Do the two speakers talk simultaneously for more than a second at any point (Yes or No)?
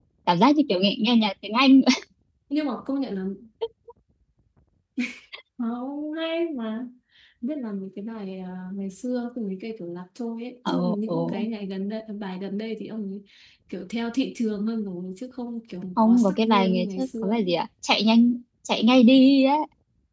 Yes